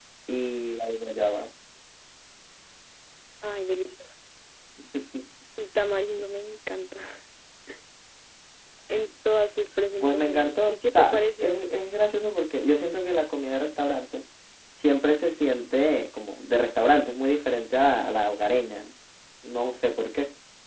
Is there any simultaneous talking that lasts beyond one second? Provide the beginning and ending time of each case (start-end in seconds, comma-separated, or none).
10.0-11.6